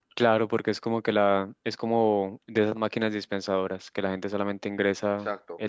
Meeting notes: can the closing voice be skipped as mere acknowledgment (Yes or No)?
Yes